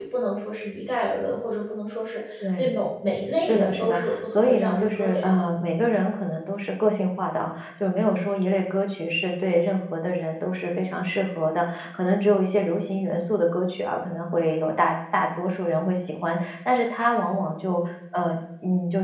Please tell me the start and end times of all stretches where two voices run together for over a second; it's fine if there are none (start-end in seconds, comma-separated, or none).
3.4-5.3